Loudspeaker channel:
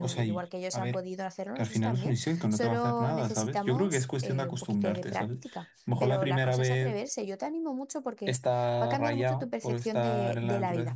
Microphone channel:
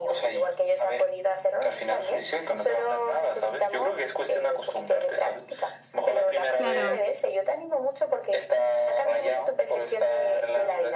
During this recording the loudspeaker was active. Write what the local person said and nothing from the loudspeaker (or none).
Claro,